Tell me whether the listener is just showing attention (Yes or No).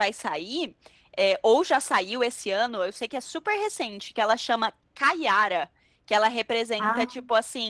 Yes